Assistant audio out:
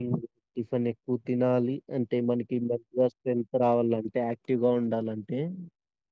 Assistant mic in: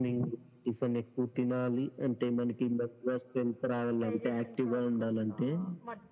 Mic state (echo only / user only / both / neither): both